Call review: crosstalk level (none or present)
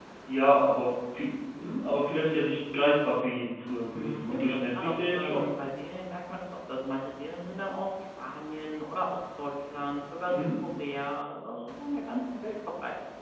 present